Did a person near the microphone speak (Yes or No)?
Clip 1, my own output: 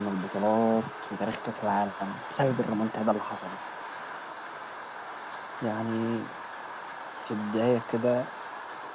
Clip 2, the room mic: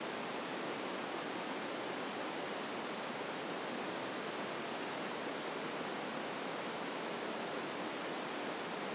No